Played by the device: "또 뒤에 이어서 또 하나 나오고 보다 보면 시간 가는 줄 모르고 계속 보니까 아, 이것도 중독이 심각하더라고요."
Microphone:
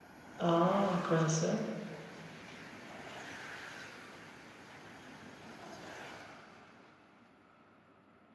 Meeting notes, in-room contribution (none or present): present